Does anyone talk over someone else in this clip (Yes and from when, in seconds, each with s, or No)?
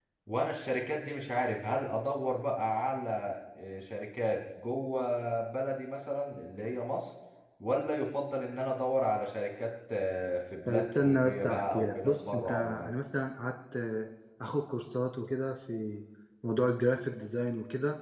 Yes, from 10.7 s